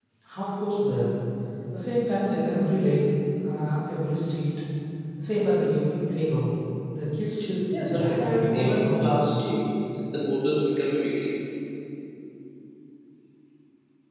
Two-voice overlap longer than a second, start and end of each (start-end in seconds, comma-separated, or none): 7.7-9.2